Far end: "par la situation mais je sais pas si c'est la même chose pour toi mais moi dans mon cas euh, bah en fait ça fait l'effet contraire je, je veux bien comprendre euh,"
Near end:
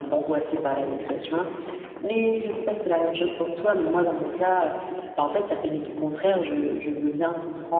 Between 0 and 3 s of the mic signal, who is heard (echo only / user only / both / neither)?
echo only